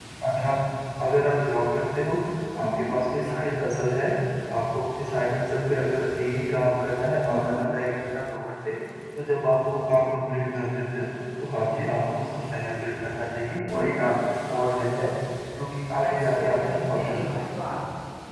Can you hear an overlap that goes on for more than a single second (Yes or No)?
Yes